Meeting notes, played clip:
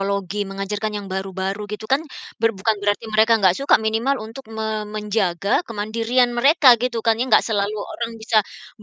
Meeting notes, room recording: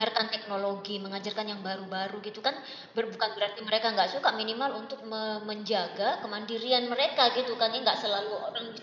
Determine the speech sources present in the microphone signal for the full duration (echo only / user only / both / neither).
echo only